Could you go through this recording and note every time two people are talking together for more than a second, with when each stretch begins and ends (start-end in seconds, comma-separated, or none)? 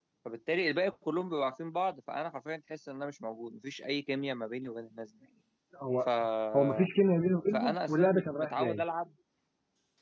7.5-8.8